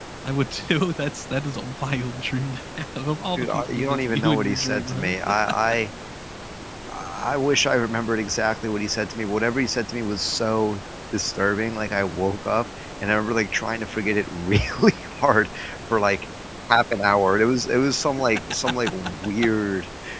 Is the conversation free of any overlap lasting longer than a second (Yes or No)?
No